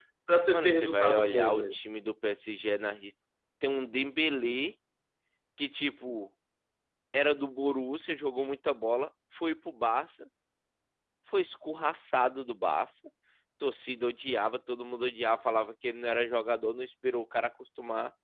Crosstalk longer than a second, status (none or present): present